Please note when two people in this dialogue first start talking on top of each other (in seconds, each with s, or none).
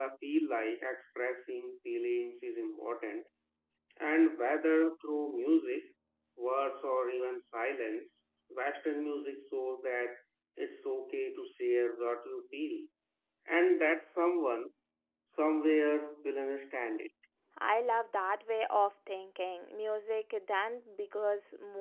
none